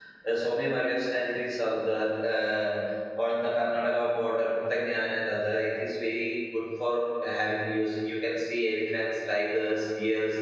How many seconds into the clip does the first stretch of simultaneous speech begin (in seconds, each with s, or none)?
none